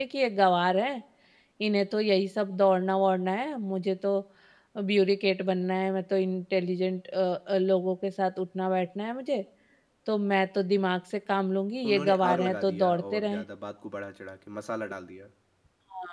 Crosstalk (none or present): present